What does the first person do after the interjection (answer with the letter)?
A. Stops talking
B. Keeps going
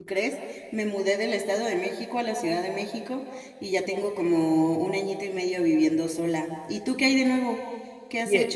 A